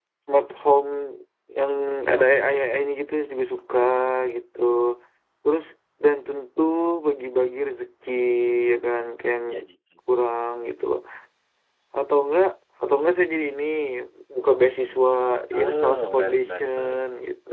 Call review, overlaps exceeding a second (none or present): present